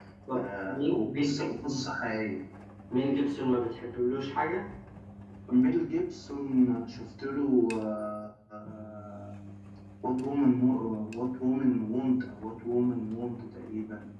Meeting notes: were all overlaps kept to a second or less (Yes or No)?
No